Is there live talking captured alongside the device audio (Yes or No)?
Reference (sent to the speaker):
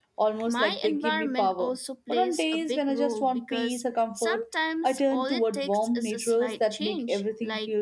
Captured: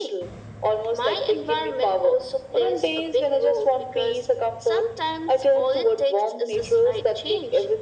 No